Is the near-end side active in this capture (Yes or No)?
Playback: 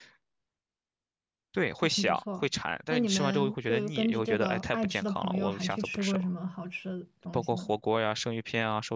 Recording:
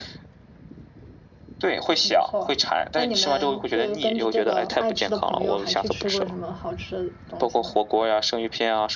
No